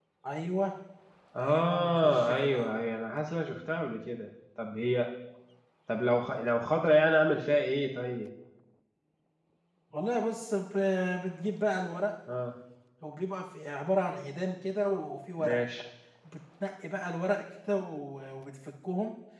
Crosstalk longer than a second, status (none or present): present